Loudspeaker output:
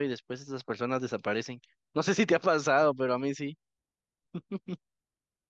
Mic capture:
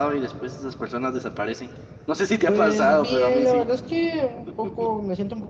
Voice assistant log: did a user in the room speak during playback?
Yes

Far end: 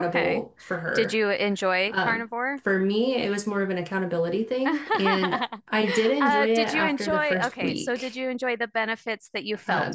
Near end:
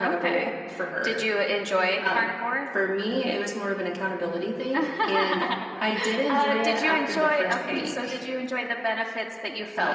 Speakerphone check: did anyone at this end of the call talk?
No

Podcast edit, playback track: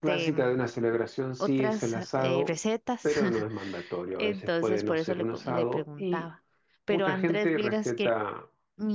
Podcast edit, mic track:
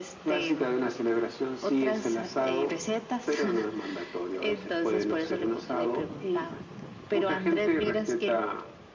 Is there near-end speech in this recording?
No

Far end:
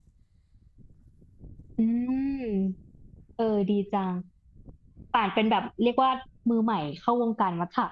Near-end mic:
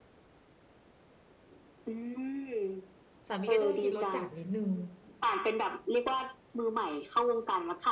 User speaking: Yes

